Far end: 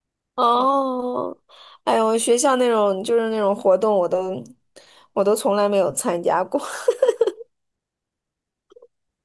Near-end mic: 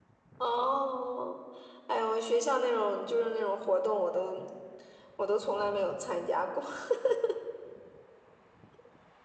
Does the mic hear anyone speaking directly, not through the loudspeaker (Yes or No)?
No